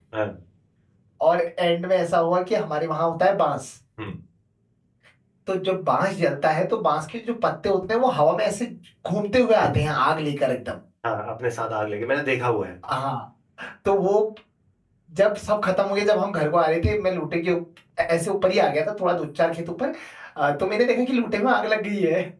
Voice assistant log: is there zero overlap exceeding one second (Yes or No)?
Yes